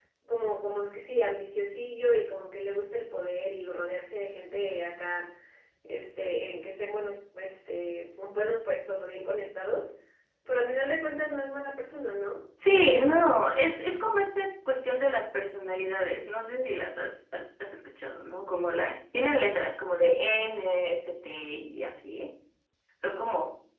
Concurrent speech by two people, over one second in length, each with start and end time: none

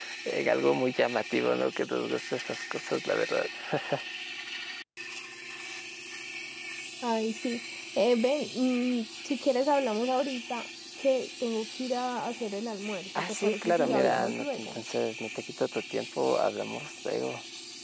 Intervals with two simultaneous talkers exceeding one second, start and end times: 13.2-14.8

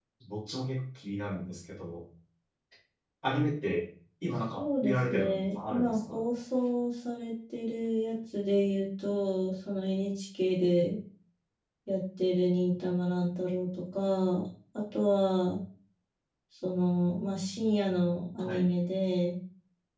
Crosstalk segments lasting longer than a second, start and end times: 4.6-6.2

